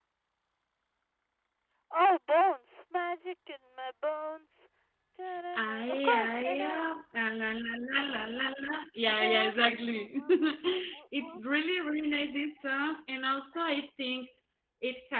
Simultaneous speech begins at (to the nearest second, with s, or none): 6 s